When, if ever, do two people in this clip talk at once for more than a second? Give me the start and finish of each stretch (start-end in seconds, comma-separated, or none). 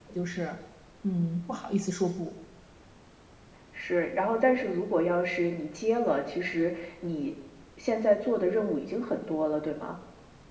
none